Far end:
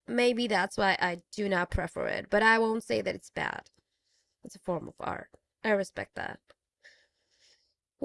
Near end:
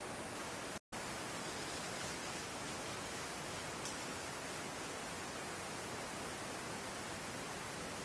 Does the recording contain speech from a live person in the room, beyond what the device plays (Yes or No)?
No